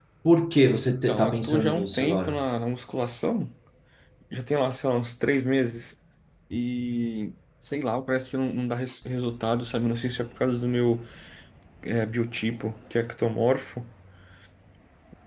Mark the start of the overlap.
1 s

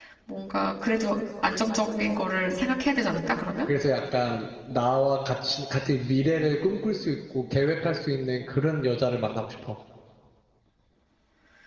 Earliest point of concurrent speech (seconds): none

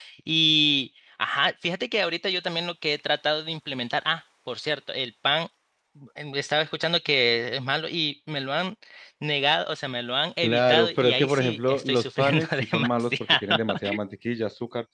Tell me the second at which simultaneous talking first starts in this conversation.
10 s

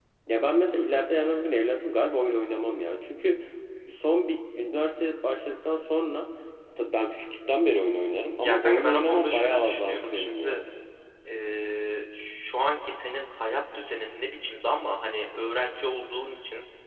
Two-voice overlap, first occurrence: 8 s

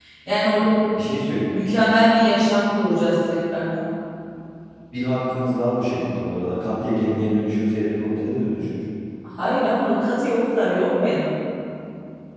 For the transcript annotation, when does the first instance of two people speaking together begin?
none

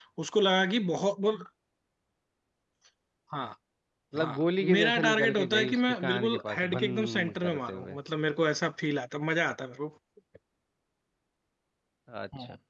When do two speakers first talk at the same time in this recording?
4 s

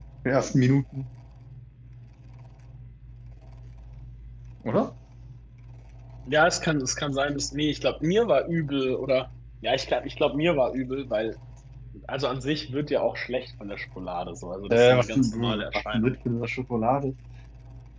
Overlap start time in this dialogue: 15 s

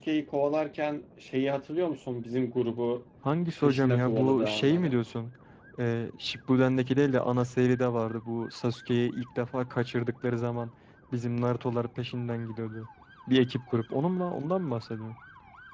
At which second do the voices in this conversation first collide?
4 s

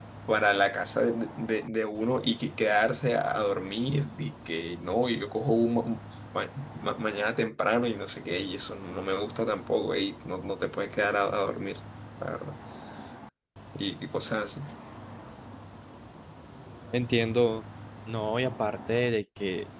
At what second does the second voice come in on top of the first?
none

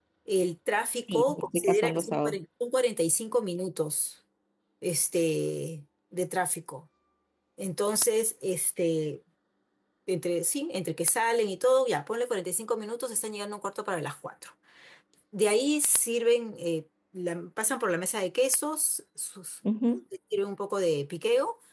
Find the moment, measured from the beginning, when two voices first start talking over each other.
1 s

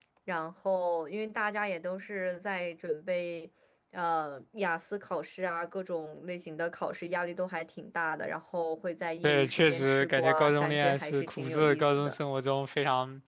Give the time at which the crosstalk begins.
9 s

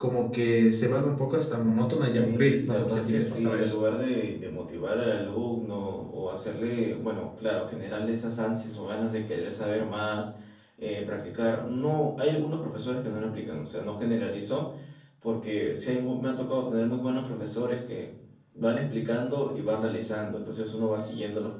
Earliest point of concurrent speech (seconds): 2 s

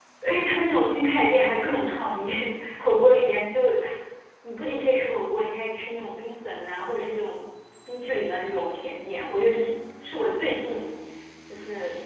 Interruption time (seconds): none

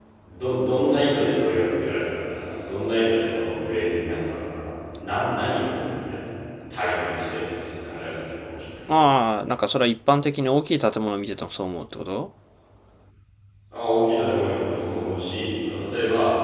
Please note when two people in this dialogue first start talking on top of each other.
none

